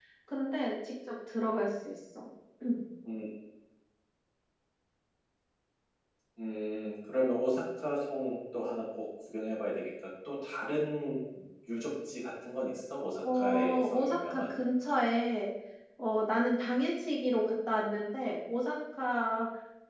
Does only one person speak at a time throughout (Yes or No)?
No